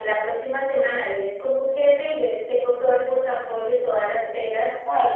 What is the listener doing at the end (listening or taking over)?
listening